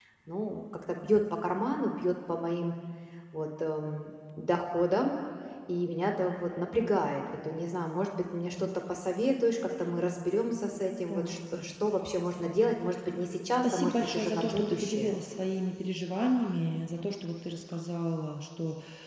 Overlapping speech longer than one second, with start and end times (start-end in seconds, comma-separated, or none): 13.6-15.2